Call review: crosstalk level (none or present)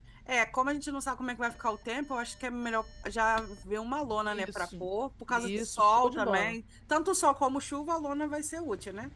present